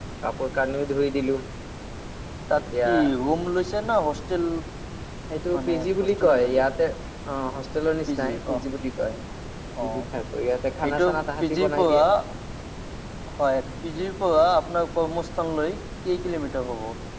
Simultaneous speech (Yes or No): Yes